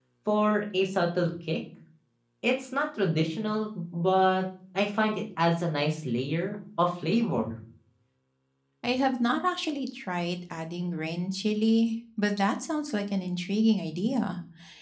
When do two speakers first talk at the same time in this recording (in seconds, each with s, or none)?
none